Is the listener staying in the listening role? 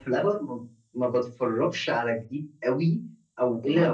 Yes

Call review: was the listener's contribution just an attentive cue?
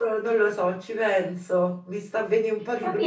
No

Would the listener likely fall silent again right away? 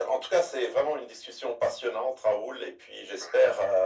Yes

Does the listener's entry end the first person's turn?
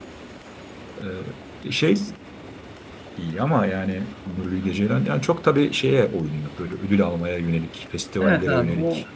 Yes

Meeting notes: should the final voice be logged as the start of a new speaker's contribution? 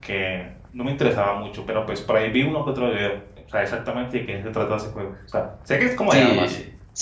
Yes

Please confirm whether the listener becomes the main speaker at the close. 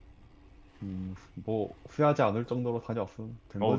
Yes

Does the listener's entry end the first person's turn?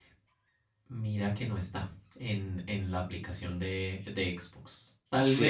No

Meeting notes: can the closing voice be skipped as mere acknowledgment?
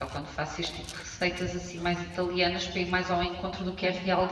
No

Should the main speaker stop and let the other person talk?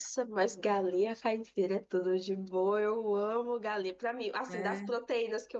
No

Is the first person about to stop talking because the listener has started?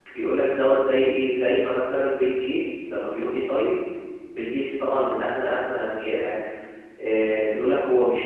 No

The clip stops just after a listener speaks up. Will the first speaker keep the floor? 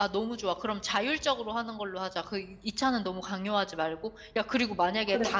Yes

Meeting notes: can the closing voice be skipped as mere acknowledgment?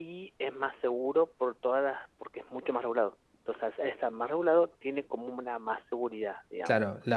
No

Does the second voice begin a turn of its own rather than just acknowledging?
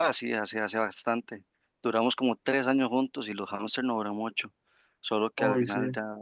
No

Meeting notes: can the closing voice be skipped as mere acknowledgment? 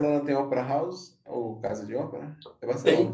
No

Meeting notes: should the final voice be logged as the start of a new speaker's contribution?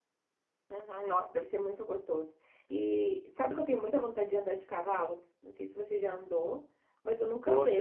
No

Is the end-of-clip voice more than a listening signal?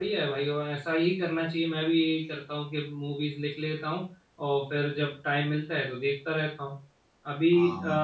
No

